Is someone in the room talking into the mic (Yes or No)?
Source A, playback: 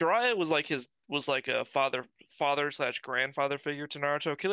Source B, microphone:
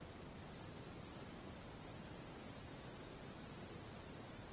No